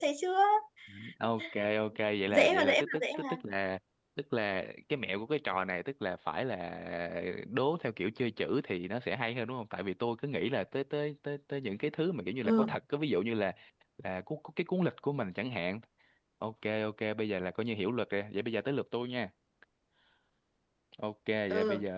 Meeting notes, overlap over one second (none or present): present